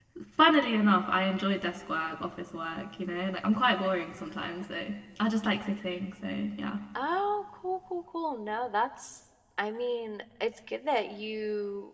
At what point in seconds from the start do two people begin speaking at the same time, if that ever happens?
none

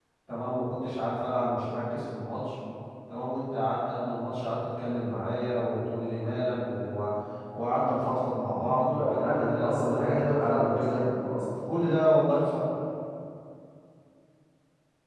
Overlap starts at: 8.6 s

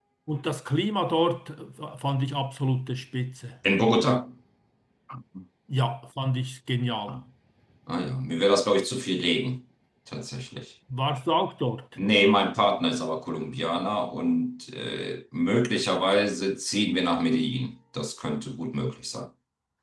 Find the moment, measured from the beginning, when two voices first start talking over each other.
none

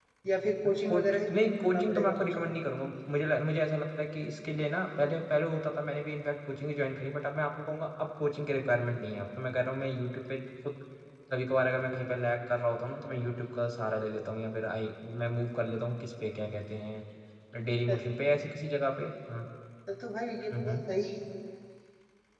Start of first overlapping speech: 0.8 s

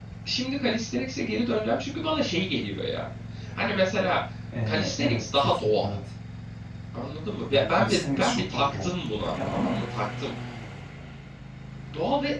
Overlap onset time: 4.7 s

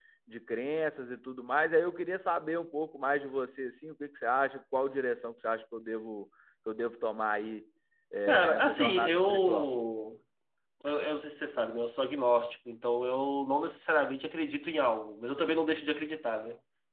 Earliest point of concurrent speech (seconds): 8.3 s

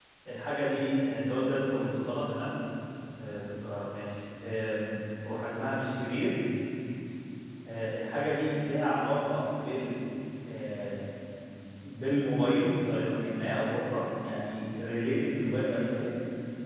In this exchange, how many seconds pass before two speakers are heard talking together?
none

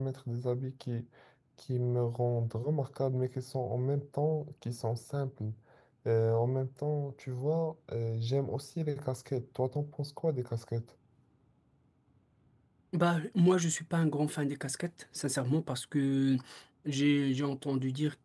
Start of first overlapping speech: none

